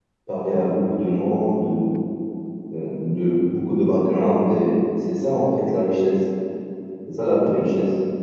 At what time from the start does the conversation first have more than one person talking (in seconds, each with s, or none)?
none